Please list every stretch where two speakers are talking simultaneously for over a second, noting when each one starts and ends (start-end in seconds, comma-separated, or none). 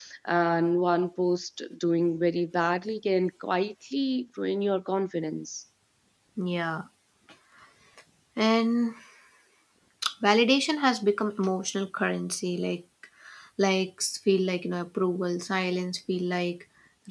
none